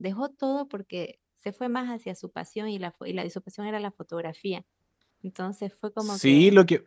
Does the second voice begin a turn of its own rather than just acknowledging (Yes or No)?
Yes